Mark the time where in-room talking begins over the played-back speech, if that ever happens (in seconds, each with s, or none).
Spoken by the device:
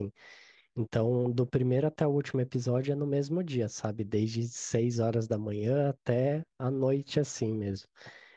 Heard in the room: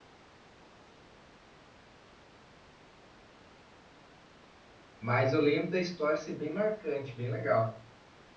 5.0 s